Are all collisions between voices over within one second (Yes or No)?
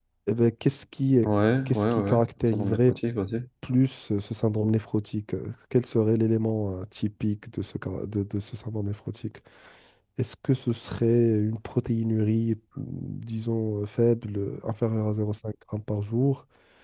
No